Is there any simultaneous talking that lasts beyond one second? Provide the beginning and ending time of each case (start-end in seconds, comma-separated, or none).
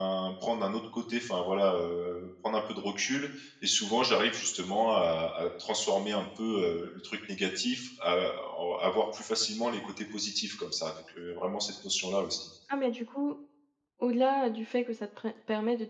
none